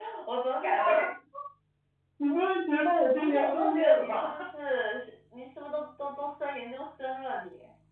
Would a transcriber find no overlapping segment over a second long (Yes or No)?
No